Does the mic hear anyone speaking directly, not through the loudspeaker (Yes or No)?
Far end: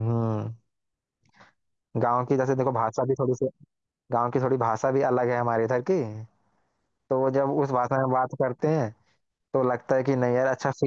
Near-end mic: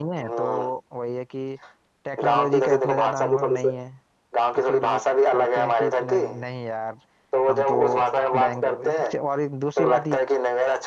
Yes